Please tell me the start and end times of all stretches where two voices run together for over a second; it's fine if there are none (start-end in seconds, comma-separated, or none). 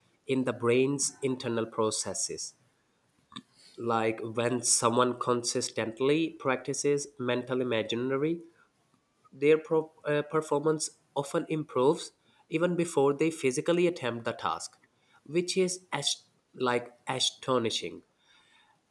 none